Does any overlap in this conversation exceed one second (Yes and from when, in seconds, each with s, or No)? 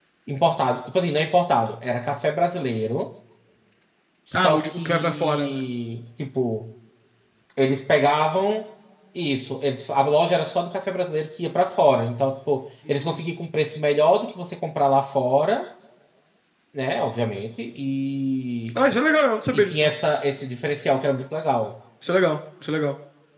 Yes, from 4.4 s